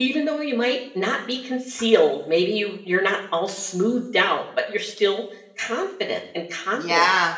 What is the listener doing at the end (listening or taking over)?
taking over